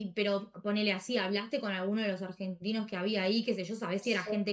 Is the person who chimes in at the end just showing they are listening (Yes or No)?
Yes